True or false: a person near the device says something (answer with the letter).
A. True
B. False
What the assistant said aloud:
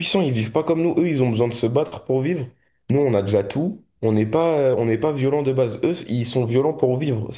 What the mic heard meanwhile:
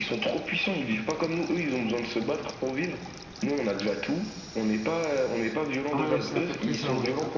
A